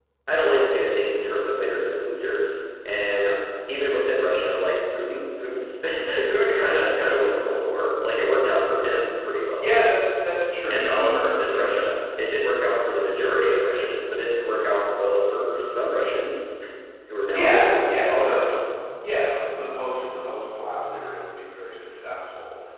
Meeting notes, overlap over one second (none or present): present